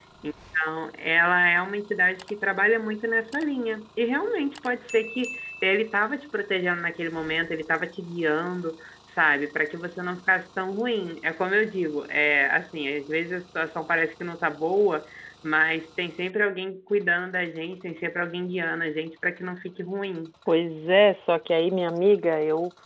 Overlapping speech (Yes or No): No